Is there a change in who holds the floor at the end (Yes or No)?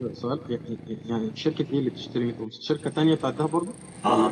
Yes